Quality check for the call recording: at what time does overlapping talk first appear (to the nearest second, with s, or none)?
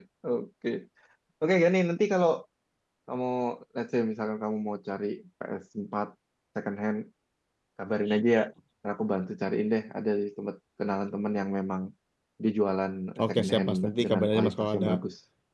13 s